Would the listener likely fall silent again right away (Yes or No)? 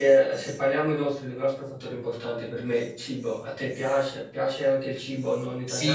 No